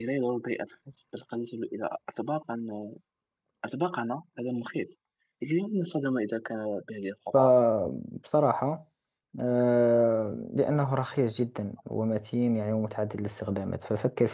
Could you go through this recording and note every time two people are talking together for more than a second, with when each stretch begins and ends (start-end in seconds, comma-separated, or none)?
none